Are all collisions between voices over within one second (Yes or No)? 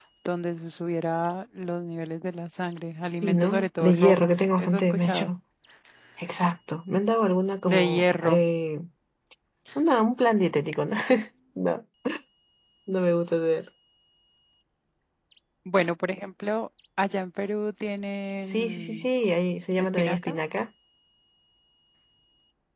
No